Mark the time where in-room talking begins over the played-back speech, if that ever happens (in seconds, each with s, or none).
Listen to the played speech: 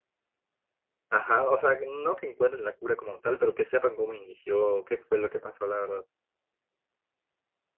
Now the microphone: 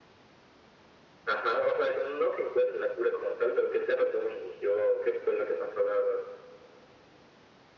none